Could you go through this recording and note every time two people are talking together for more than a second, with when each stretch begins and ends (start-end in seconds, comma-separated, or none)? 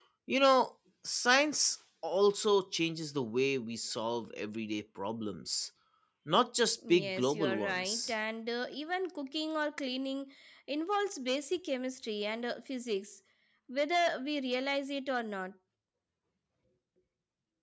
6.9-8.1